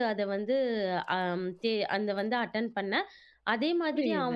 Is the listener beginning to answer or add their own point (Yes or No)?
Yes